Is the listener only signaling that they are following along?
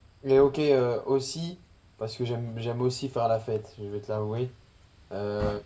Yes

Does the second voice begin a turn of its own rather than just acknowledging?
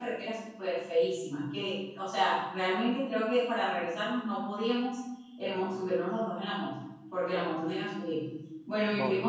No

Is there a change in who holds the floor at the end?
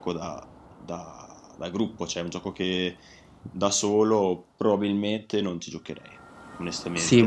Yes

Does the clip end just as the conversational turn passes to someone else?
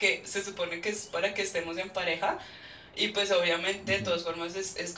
No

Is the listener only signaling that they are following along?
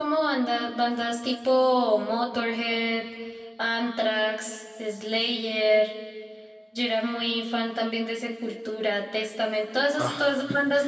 Yes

